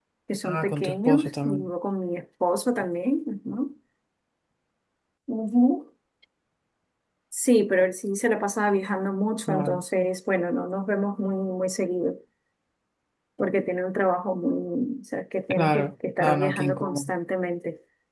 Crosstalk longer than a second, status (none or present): present